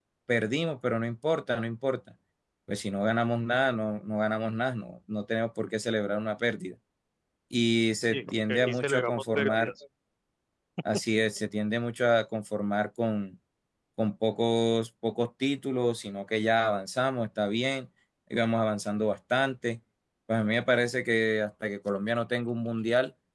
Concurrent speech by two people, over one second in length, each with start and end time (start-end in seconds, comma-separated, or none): 8.1-9.7